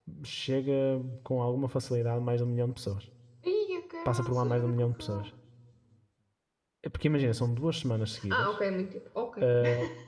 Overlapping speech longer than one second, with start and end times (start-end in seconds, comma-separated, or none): 4.0-5.3